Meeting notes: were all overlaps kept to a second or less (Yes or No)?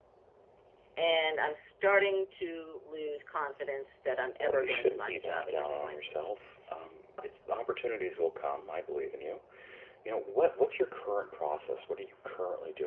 No